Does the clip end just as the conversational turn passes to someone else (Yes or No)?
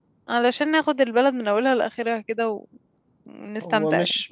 Yes